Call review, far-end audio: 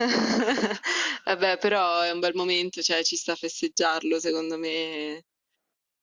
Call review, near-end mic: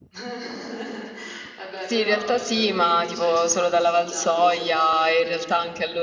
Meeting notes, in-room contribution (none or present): present